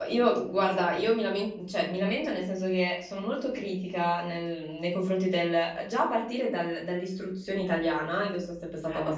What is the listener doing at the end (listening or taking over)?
listening